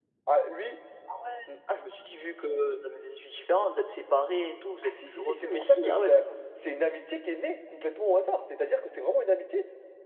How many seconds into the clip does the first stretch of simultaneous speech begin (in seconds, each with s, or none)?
4.8 s